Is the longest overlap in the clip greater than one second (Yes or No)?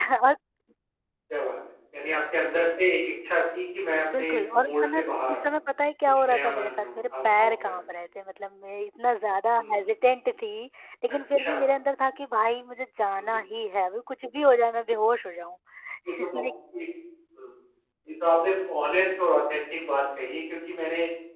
Yes